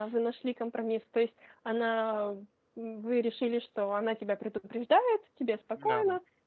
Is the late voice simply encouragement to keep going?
Yes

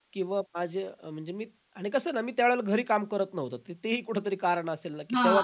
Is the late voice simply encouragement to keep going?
No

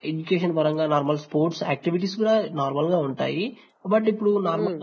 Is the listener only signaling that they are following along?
Yes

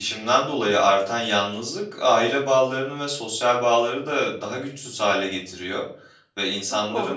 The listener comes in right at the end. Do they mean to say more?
No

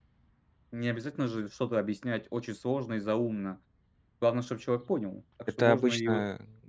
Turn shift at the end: Yes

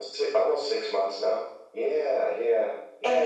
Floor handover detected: Yes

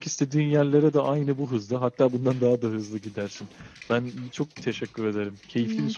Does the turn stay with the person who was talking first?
No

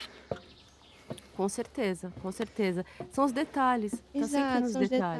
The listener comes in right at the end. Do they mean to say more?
Yes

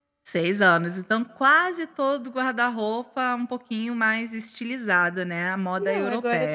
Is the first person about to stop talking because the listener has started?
Yes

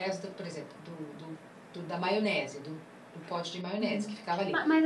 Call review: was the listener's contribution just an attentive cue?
No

